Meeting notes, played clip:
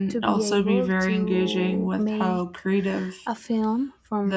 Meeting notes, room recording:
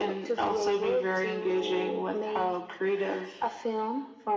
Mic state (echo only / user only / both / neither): echo only